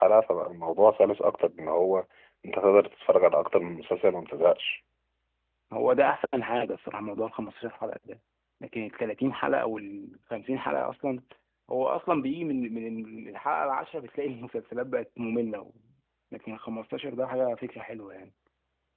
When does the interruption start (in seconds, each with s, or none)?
none